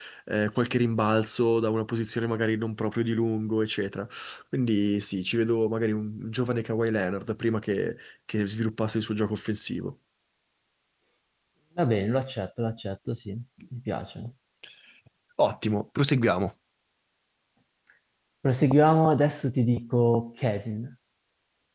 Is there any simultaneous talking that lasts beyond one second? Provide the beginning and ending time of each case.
none

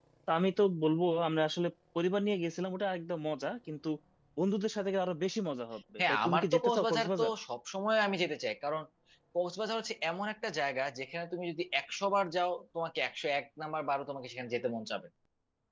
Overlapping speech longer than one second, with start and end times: 6.0-7.3

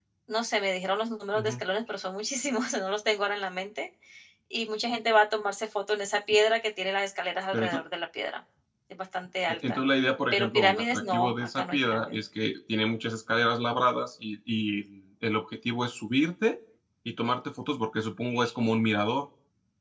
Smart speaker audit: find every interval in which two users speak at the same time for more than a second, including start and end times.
10.3-12.2

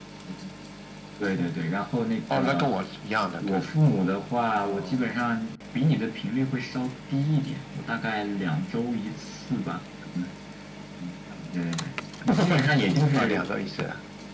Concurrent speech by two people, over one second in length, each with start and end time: none

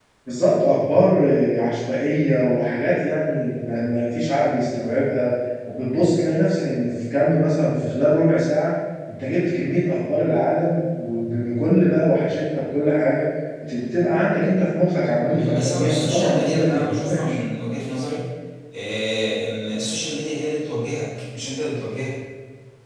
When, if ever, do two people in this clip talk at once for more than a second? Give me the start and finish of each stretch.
15.3-17.4

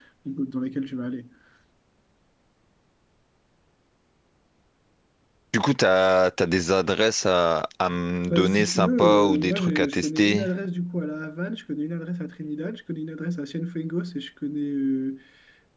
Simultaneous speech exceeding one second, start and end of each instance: 8.3-10.4

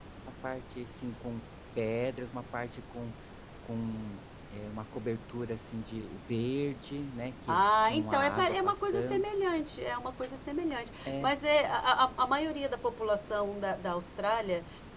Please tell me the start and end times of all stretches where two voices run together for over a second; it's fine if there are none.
7.5-9.3

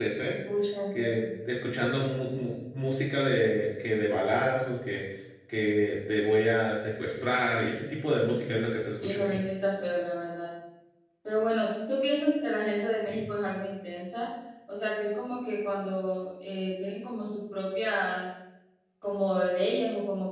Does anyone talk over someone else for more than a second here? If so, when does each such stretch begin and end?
none

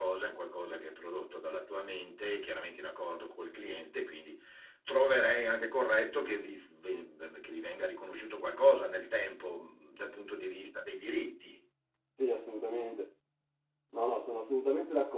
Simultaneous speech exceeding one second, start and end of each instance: none

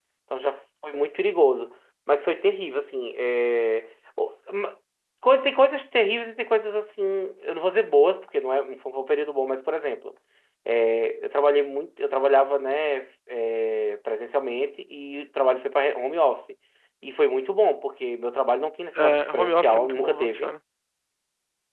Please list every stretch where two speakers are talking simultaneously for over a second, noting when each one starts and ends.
18.9-20.5

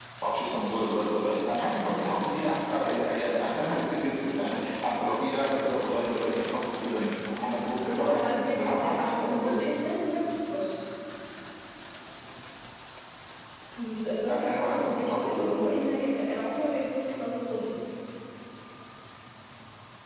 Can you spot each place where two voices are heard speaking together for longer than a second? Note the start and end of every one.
7.8-9.6, 14.3-15.7

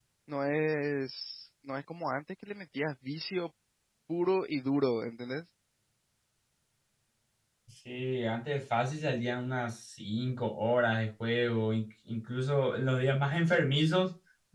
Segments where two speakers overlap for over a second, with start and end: none

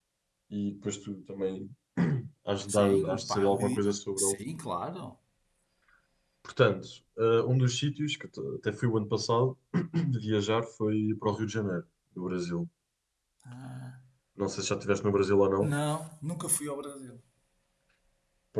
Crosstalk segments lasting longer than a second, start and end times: 2.7-4.4

